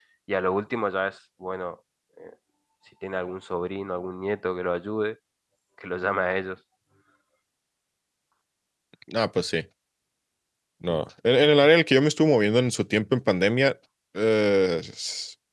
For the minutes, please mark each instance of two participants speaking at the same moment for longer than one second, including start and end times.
none

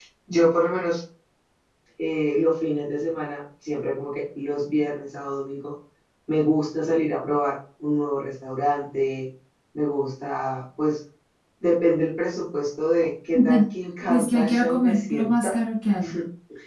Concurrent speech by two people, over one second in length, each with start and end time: 14.1-15.6

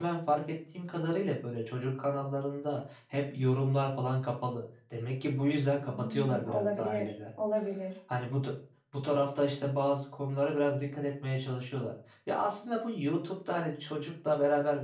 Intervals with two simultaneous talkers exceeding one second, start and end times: 5.8-7.1

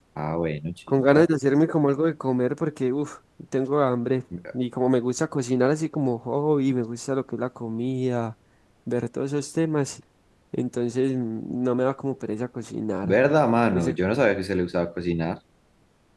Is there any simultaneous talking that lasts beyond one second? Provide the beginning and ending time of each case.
none

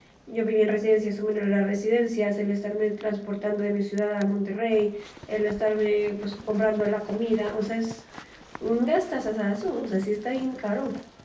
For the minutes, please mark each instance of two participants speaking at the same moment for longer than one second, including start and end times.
none

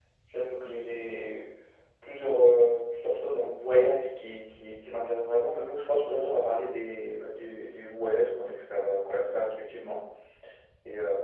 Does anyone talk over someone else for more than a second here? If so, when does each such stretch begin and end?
none

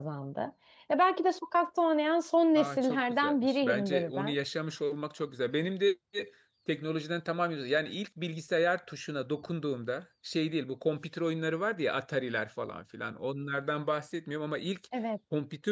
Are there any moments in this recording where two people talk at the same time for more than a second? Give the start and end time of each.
2.5-4.4

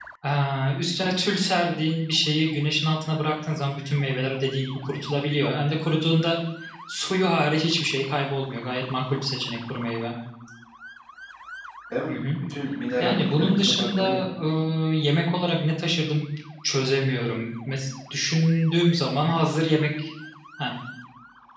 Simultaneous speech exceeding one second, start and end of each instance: 13.0-14.2

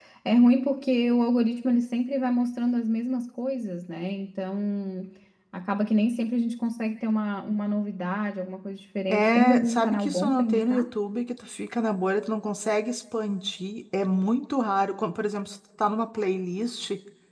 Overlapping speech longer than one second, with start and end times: 9.1-10.8

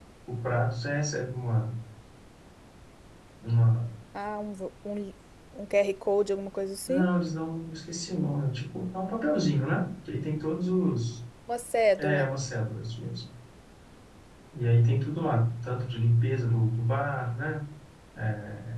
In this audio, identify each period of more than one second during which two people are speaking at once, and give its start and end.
none

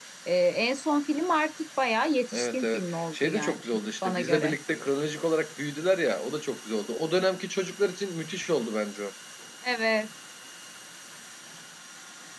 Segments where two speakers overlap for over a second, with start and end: 2.3-3.6

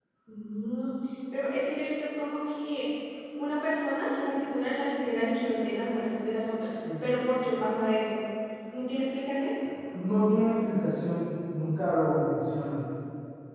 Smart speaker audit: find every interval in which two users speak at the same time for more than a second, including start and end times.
none

